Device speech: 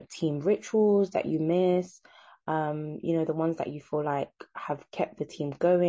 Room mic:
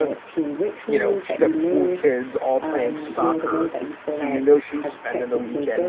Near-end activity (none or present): present